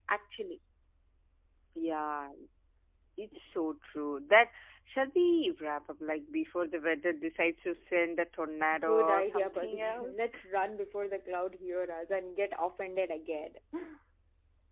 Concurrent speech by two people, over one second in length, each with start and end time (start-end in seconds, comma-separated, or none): 8.8-10.3